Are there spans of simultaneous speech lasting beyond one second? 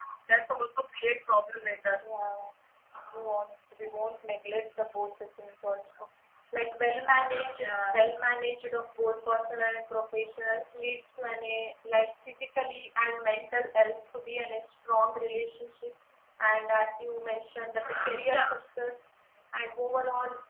No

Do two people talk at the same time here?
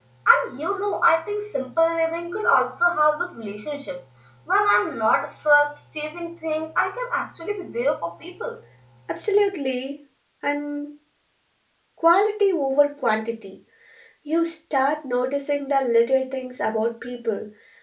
No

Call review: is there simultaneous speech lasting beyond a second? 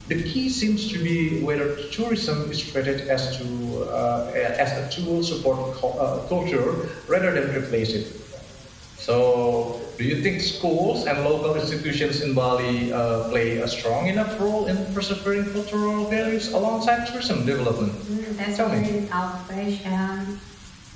No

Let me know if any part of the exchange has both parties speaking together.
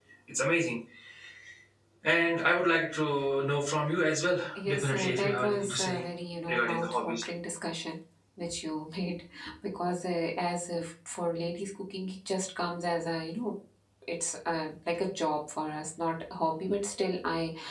Yes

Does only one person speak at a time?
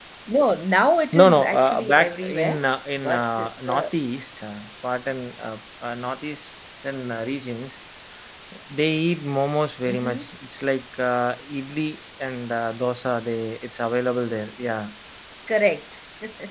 No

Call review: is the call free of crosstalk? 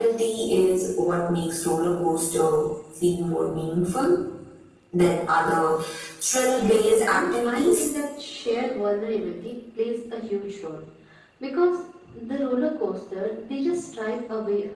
No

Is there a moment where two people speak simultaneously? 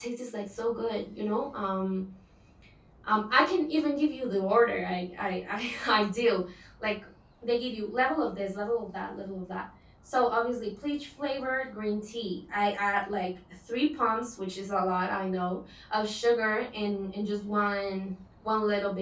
No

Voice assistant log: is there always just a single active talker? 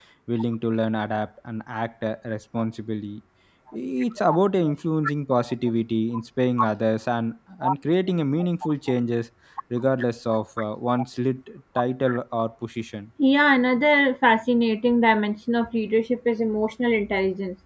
Yes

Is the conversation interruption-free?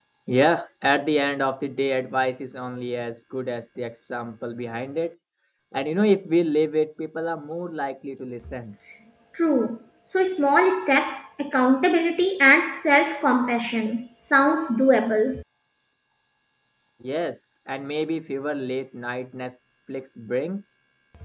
Yes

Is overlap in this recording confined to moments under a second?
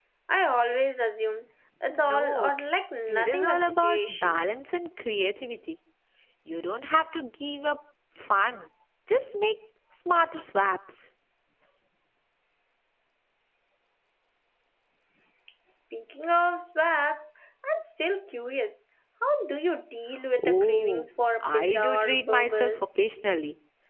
No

